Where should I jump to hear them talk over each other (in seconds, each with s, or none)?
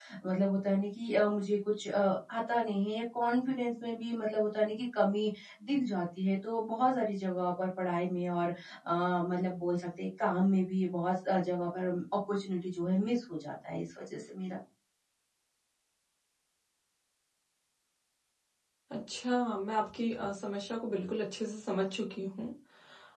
none